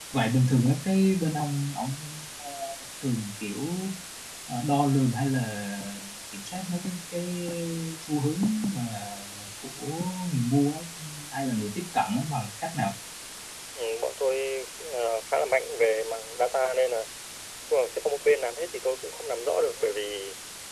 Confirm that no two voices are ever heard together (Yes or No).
Yes